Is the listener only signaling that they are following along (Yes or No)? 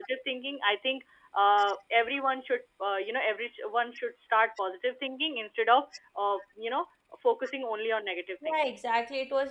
No